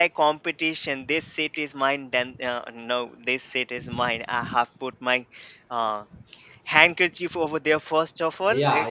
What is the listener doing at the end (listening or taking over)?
taking over